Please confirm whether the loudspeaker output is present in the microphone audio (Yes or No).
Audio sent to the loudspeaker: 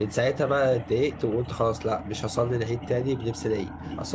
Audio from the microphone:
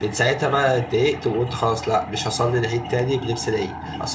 Yes